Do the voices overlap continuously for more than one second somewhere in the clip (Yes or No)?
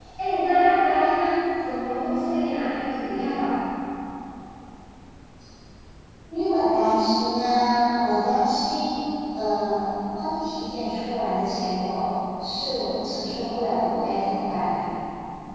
No